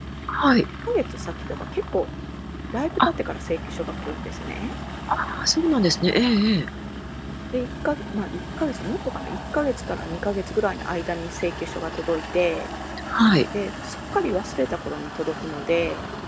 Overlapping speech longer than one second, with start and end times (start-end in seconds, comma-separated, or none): none